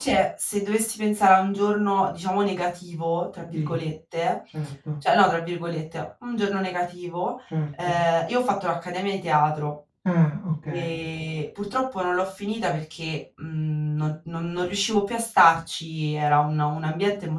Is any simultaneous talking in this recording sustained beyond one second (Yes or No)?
No